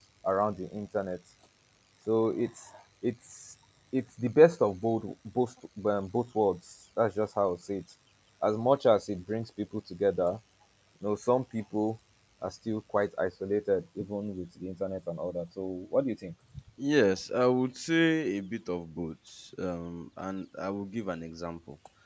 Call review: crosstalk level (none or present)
none